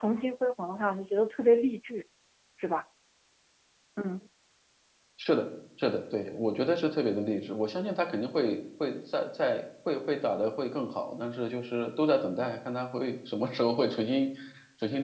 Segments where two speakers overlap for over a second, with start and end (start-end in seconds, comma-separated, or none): none